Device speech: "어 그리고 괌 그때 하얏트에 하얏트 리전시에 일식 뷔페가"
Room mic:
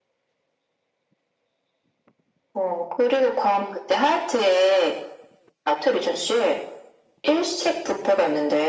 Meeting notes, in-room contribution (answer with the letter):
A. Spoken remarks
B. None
B